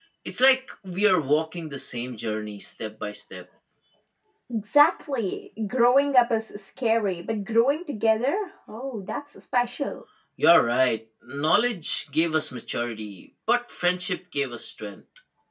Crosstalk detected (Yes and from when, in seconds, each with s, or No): No